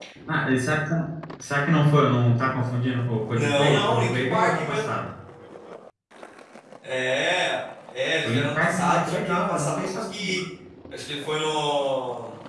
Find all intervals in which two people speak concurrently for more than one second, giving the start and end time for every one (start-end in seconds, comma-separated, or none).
3.3-5.0, 8.2-10.3